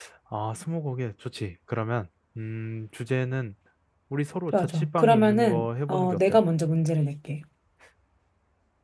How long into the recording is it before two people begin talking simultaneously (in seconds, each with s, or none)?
4.5 s